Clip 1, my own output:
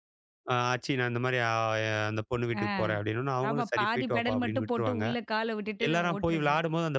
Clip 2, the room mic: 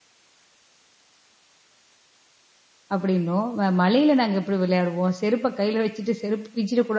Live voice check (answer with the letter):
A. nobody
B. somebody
B